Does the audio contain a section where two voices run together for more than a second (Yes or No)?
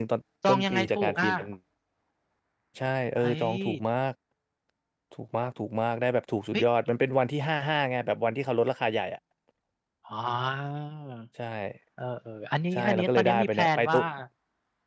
Yes